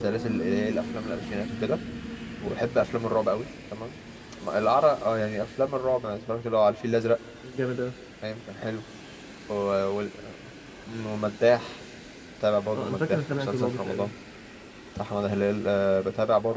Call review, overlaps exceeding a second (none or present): present